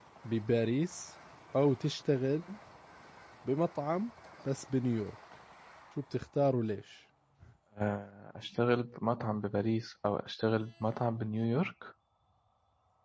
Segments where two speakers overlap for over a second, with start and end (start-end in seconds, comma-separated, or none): none